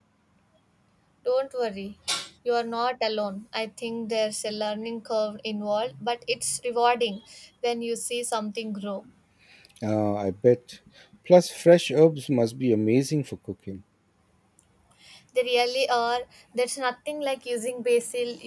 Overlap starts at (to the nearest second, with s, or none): none